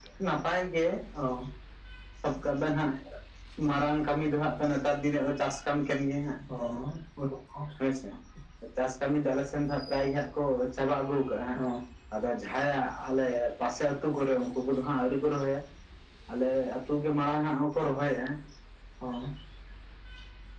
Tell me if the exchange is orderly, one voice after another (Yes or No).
Yes